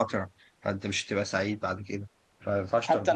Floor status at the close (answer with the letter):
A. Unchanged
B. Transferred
B